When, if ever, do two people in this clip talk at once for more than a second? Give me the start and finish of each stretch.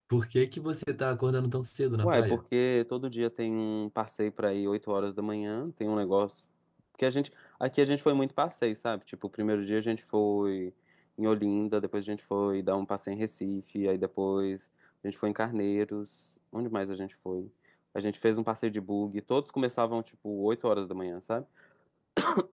none

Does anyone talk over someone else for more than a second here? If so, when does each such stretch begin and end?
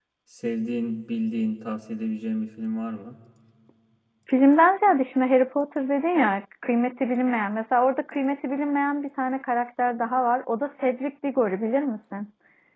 none

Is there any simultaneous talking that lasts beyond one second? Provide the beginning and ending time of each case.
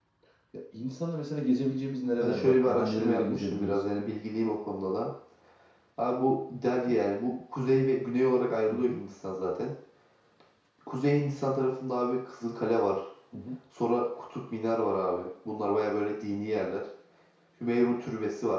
2.1-3.8

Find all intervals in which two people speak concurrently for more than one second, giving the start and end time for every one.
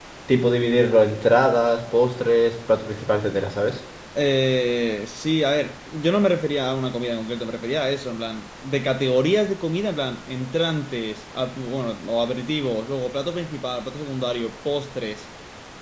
none

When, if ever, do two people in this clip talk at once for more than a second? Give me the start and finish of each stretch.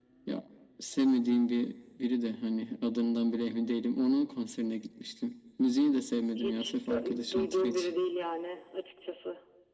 6.4-8.0

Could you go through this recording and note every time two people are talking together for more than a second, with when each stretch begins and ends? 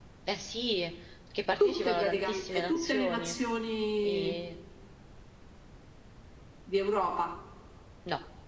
1.6-3.3

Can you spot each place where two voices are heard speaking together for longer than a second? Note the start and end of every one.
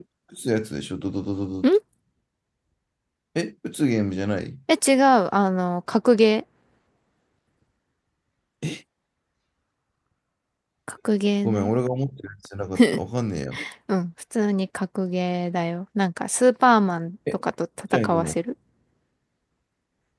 none

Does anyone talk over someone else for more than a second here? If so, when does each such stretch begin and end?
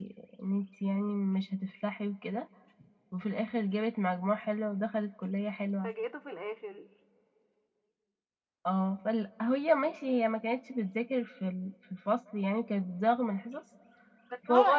none

